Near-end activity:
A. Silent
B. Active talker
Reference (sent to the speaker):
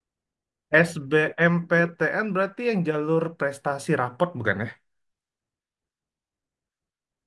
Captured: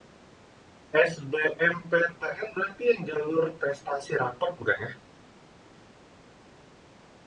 A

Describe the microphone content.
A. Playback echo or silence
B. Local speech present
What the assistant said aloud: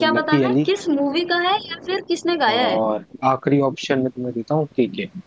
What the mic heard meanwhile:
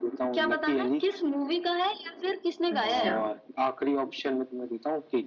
B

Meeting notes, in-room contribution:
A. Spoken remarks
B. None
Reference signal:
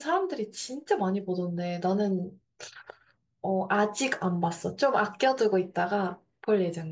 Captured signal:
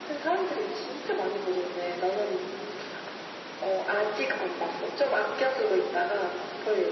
B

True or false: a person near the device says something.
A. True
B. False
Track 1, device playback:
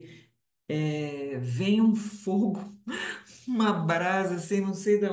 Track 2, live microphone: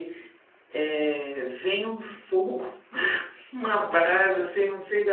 B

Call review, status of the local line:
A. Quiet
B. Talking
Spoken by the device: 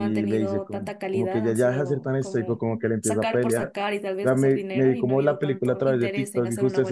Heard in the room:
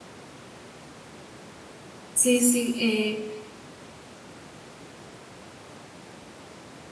B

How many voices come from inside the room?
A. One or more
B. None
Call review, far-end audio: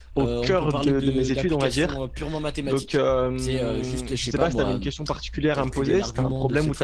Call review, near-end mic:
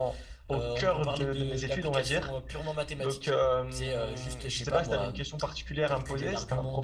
B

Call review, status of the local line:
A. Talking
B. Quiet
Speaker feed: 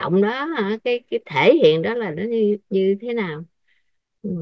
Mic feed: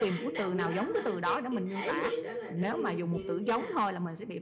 A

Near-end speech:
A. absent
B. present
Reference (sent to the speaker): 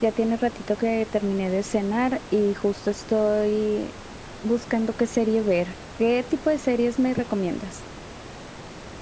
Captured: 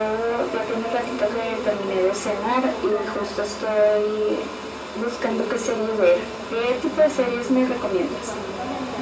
B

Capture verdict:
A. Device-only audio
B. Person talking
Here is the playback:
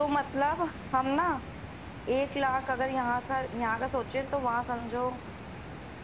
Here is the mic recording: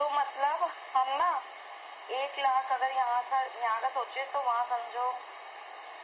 A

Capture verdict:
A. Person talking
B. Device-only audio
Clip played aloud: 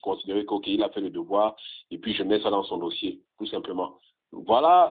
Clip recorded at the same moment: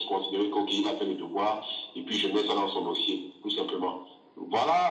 B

